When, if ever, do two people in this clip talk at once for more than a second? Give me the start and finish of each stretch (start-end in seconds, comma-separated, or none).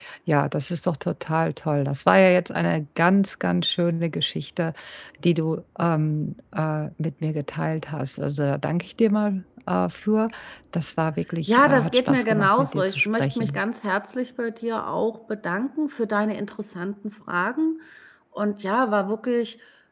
11.5-13.6